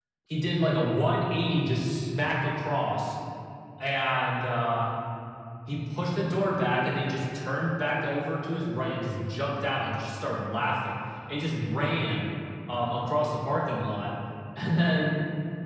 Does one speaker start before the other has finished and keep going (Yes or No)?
No